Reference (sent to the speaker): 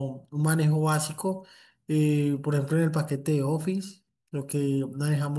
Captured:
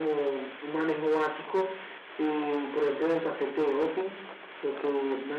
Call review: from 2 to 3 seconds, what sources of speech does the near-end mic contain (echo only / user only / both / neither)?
echo only